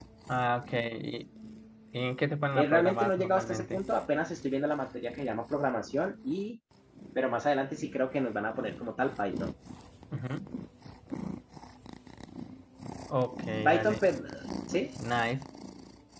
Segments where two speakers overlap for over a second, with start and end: 2.5-3.8

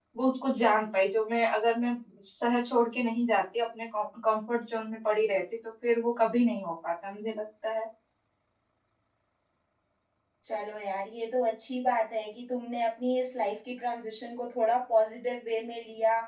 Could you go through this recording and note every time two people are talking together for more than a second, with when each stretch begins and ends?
none

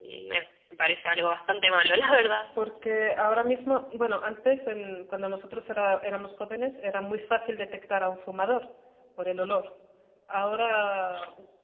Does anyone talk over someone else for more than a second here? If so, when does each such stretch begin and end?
none

